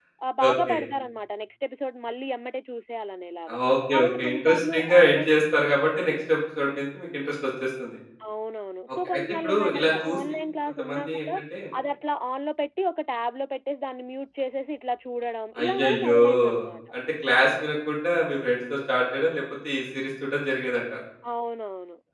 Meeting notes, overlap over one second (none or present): present